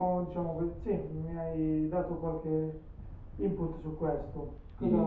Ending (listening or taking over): taking over